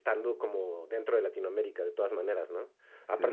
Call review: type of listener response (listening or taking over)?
listening